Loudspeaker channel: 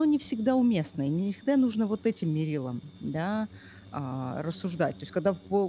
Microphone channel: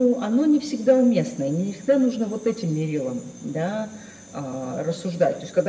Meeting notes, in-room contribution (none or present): none